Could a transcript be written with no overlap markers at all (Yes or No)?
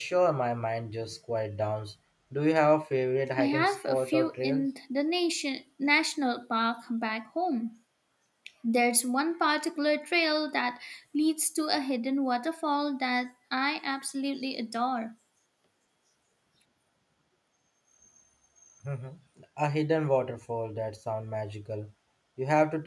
No